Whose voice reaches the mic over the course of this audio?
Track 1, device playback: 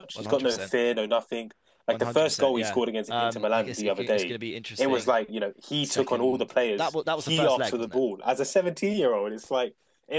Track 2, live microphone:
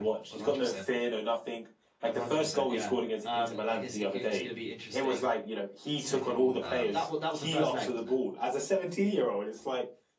both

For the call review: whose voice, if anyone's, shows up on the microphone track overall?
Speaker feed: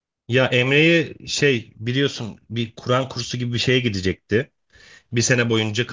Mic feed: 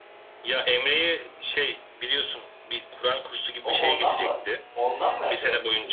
both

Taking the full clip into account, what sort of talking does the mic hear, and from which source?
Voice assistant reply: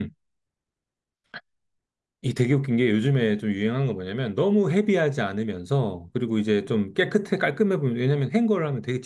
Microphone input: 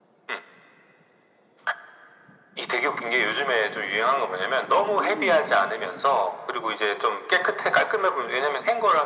both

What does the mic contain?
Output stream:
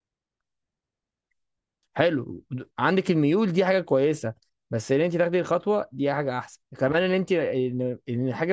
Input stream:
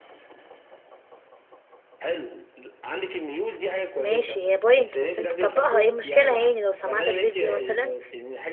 both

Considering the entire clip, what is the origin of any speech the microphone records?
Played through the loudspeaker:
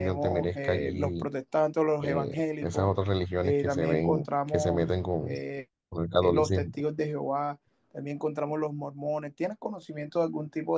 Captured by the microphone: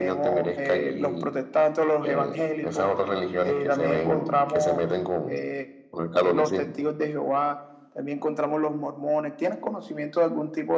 echo only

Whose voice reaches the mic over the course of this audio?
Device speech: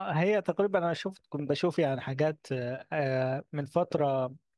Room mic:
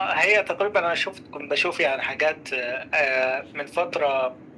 echo only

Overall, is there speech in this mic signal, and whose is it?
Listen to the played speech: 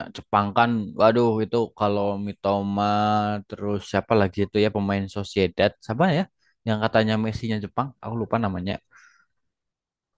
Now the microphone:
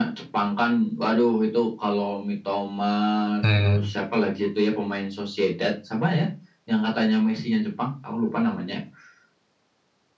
both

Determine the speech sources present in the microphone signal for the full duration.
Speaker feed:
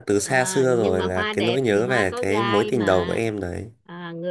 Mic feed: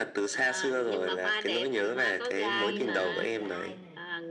both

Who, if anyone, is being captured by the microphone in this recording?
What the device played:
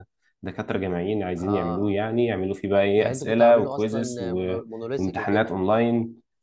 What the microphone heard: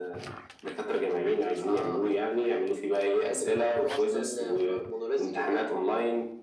echo only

